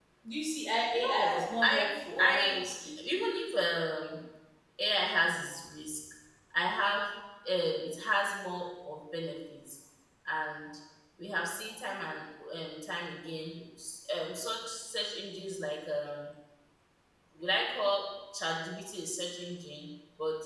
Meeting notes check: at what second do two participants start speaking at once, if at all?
0.9 s

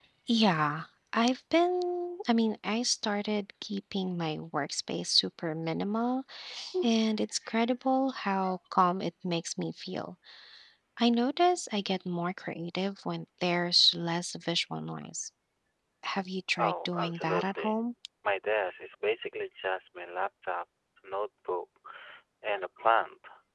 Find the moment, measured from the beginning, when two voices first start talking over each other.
16.6 s

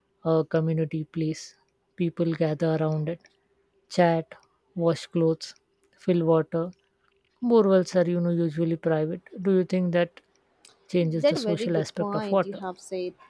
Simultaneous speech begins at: 11.0 s

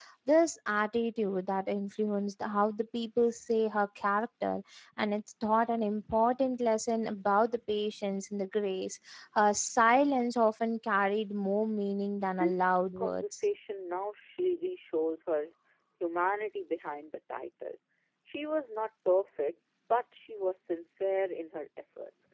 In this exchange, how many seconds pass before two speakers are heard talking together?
12.2 s

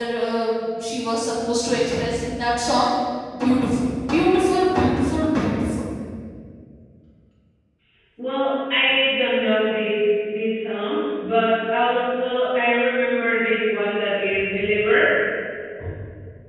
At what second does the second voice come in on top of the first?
none

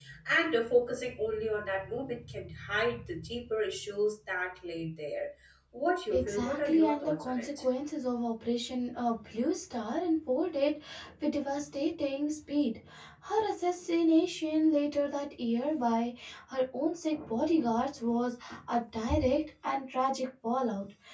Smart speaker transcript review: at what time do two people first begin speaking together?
6.1 s

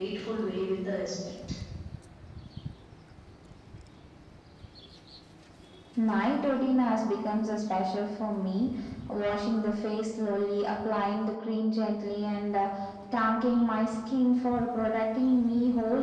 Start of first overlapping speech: none

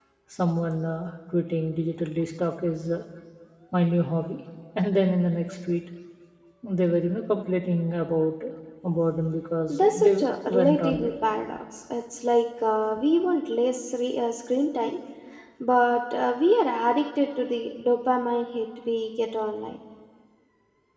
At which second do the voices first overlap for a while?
9.7 s

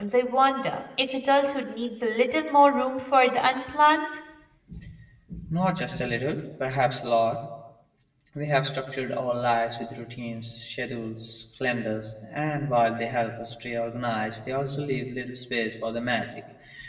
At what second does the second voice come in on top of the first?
none

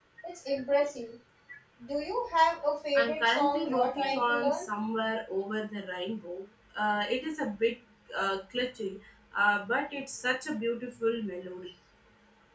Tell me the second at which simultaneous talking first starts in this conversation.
3.0 s

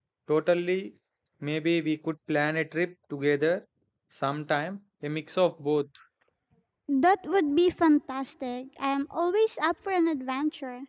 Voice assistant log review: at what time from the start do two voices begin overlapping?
none

